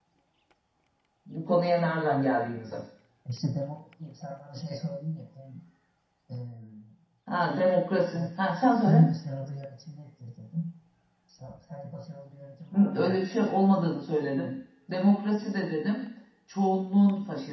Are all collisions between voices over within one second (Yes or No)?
Yes